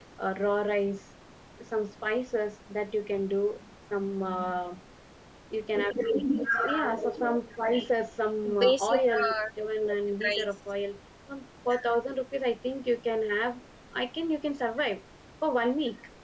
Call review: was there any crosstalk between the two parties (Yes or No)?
Yes